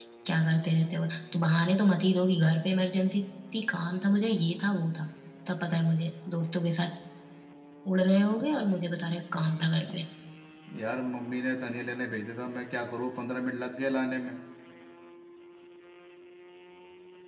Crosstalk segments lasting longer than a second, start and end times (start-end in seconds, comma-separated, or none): none